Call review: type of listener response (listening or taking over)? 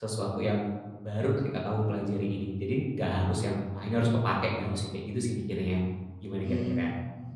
taking over